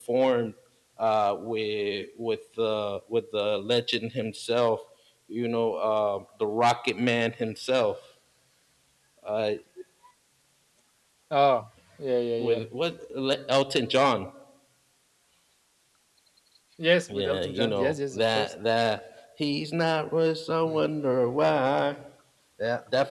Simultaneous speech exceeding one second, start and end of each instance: 17.1-18.5

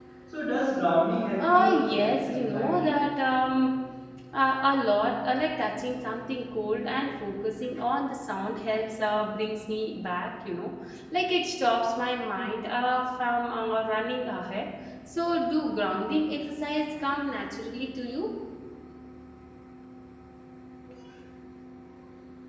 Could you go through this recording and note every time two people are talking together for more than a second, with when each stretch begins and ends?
1.4-3.0

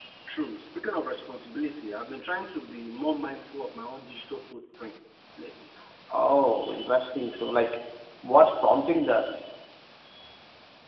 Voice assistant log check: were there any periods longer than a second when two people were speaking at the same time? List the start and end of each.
none

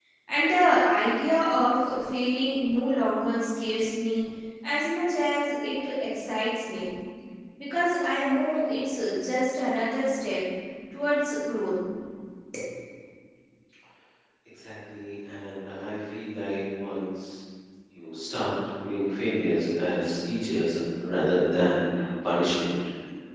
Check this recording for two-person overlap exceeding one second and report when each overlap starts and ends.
none

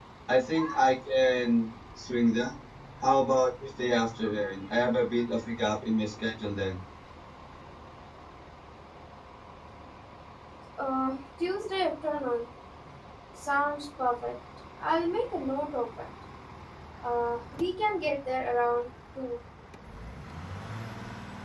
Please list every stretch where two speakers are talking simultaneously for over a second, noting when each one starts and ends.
none

